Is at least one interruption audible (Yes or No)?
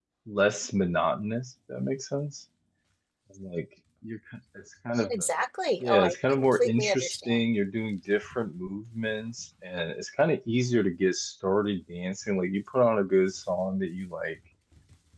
Yes